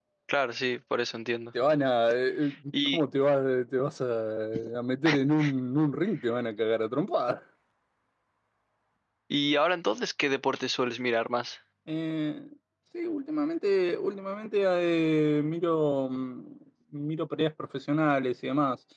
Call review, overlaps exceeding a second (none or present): none